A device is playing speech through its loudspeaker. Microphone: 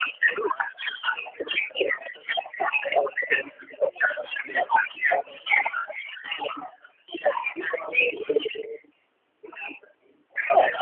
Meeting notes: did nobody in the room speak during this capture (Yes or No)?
Yes